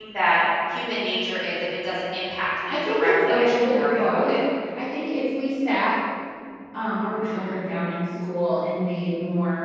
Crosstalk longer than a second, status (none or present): present